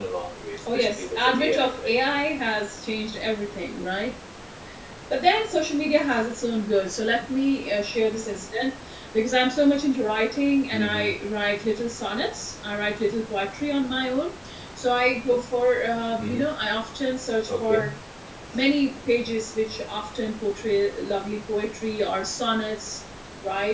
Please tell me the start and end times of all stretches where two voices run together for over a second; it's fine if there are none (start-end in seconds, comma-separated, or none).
0.7-2.0